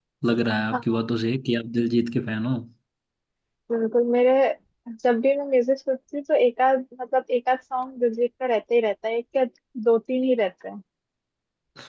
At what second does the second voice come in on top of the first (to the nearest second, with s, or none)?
none